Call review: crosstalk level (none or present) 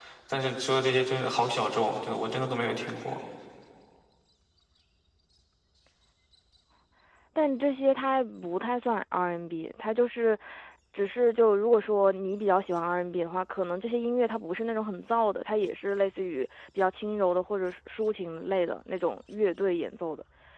none